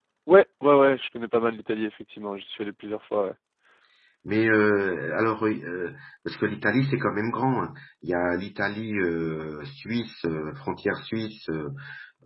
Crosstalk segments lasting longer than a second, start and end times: none

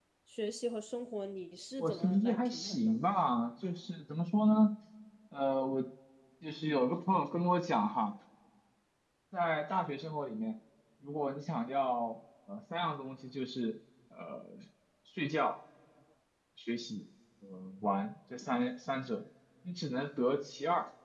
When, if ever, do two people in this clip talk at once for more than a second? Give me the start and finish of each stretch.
1.8-3.1

